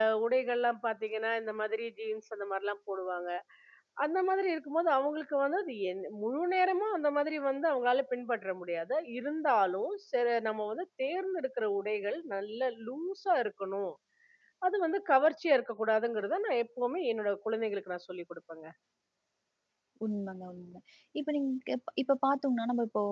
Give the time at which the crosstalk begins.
none

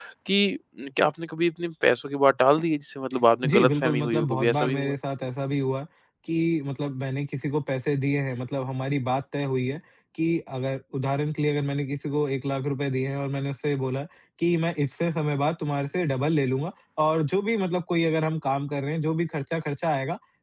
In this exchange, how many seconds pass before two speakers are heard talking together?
3.4 s

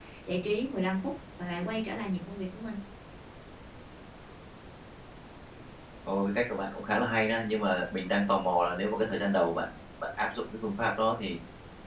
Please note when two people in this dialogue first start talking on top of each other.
none

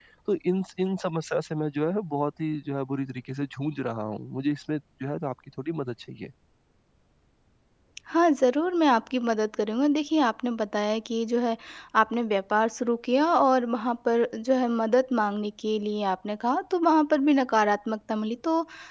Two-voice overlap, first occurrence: none

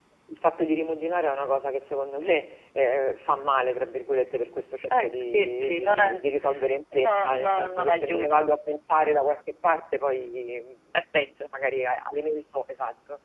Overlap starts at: 4.7 s

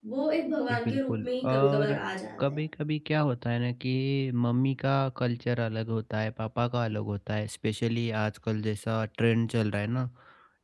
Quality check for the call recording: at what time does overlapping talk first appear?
0.7 s

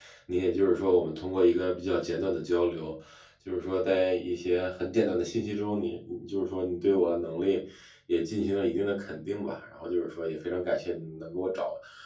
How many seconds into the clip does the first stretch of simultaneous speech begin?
none

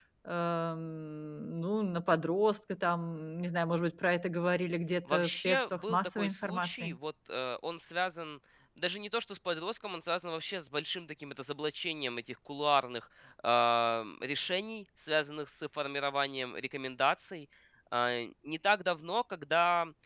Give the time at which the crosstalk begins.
5.0 s

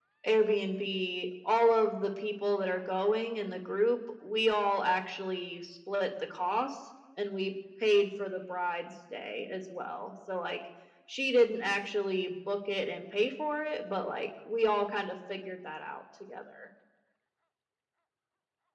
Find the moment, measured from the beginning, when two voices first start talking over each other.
none

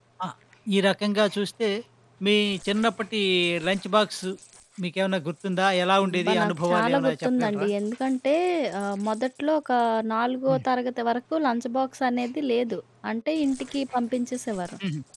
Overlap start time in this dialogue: 6.0 s

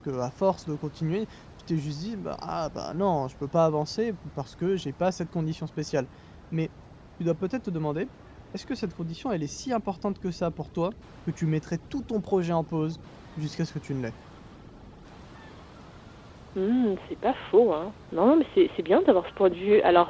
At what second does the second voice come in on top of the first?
none

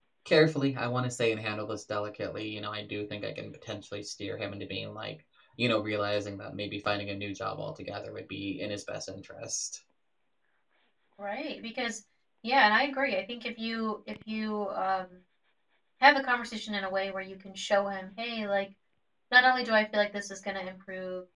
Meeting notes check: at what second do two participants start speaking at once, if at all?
none

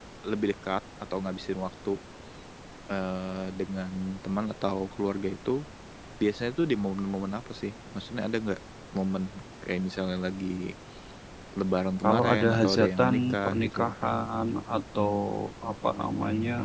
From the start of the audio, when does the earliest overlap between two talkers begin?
12.0 s

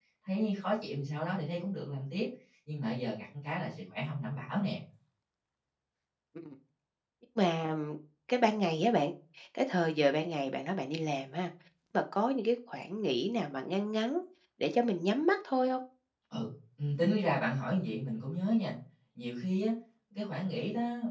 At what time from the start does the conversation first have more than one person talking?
none

